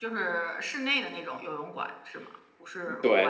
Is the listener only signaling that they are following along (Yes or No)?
No